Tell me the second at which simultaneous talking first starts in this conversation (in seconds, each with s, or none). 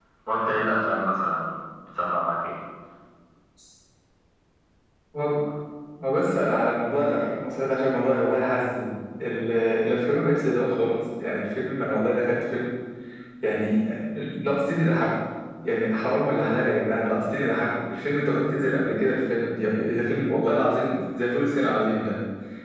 none